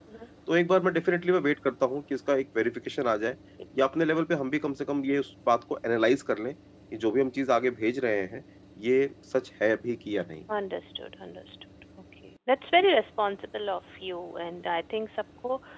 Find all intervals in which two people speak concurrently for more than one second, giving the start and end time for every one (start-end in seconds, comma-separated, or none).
none